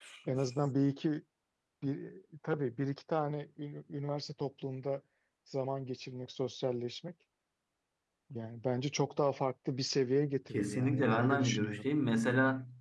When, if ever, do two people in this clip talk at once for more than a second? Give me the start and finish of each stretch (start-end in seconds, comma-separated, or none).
10.5-11.9